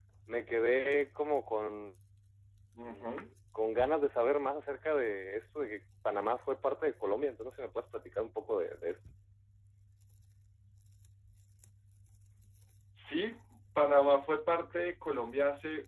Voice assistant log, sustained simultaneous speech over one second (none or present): none